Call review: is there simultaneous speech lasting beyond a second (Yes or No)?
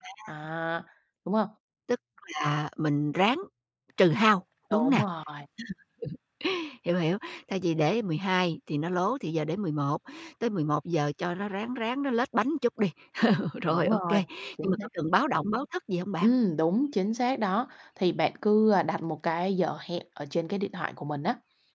No